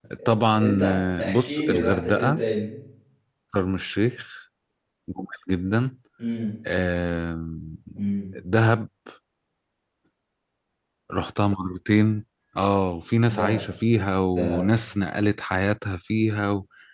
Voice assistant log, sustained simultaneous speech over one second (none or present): present